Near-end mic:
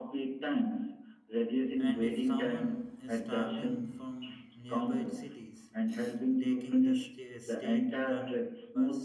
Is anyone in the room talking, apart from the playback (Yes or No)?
Yes